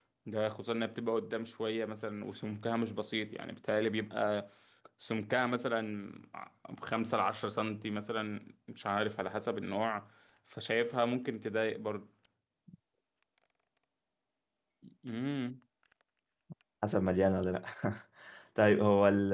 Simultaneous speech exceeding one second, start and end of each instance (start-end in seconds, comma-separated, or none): none